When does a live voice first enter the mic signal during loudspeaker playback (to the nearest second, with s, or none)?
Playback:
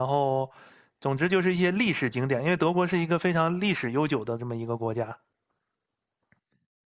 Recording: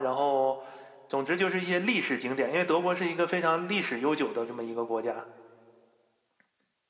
none